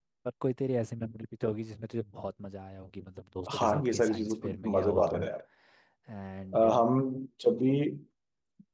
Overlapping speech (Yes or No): Yes